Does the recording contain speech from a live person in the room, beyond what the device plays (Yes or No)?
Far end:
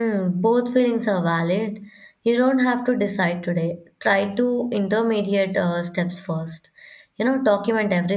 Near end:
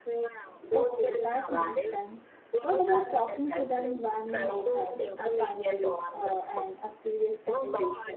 Yes